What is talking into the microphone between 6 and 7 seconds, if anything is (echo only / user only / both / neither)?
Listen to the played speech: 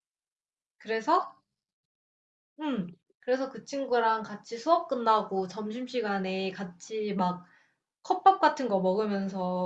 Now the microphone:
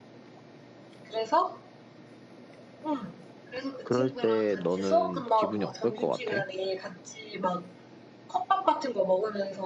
both